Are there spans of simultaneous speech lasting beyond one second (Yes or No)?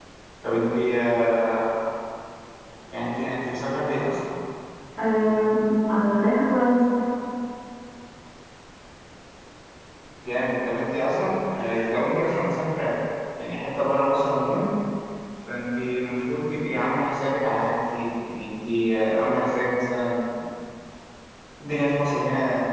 No